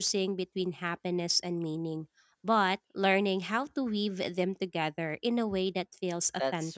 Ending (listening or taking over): taking over